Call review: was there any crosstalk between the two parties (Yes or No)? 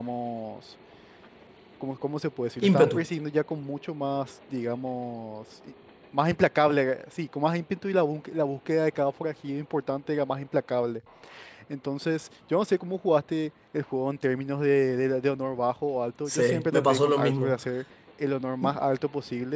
Yes